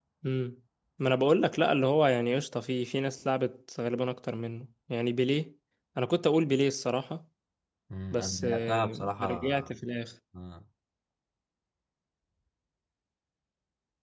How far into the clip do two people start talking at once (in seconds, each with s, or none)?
8.1 s